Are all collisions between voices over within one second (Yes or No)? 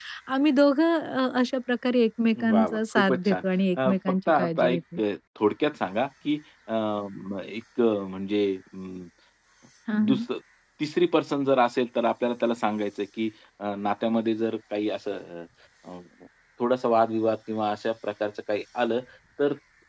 No